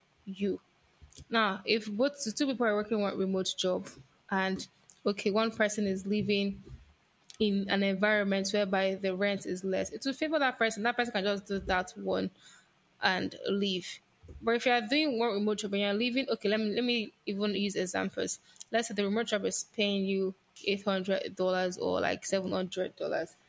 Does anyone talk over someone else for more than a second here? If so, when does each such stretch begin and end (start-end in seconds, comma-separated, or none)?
none